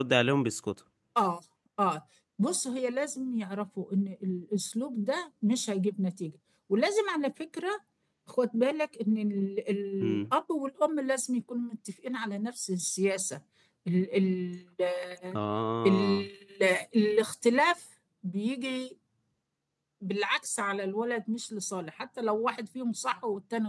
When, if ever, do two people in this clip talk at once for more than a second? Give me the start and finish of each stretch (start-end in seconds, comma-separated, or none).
none